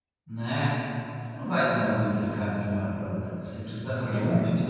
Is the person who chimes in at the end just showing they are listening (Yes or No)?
Yes